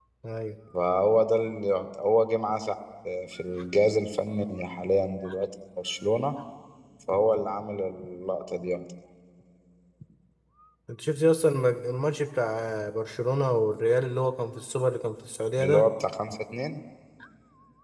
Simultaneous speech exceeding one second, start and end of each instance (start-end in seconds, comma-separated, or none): none